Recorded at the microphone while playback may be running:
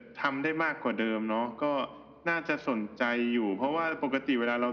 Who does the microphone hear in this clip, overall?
echo only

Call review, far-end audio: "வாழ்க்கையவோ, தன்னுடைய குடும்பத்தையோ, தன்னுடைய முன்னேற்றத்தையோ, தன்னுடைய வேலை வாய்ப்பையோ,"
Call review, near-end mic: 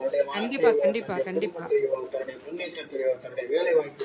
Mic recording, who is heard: both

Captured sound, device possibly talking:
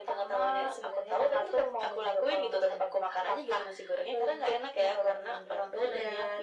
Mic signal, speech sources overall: echo only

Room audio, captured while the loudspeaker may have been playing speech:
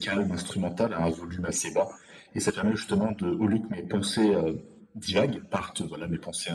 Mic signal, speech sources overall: echo only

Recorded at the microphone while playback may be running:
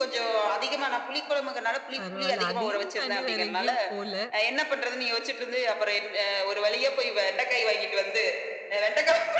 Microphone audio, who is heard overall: both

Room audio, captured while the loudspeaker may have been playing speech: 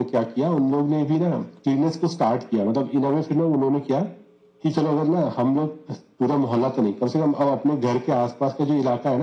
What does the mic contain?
echo only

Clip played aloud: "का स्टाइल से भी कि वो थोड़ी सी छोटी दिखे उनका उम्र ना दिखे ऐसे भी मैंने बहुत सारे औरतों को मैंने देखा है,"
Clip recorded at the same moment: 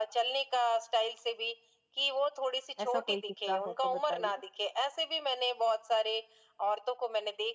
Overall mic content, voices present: both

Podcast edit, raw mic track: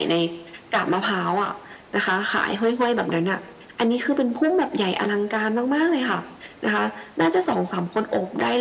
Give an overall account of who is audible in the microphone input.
echo only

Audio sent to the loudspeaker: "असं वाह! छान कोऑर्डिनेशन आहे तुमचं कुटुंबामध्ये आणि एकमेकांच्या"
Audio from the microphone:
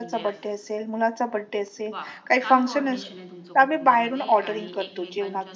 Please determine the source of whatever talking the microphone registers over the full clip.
both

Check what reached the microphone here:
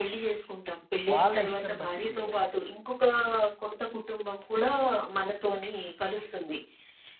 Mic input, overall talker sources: both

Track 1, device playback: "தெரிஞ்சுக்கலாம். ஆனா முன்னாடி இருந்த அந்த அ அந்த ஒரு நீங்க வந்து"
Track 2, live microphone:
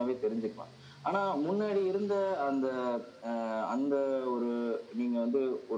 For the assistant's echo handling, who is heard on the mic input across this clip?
echo only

